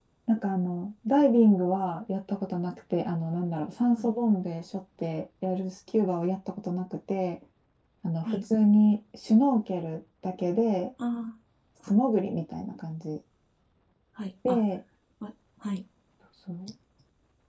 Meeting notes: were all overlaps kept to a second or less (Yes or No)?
Yes